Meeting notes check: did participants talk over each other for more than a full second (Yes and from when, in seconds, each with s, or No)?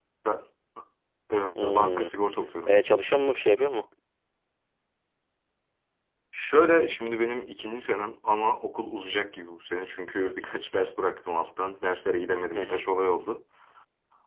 No